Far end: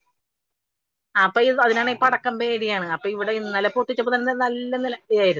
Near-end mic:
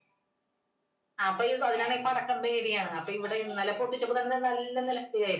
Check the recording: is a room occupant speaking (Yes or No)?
No